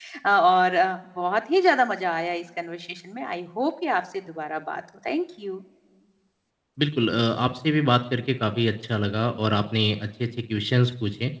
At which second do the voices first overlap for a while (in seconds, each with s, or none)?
none